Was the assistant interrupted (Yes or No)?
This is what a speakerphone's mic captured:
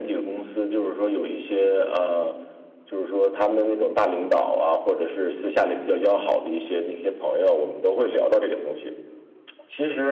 No